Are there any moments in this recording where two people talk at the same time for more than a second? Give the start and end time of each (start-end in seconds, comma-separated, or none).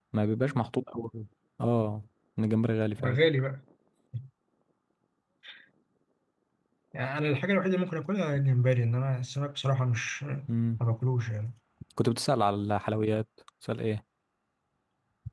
none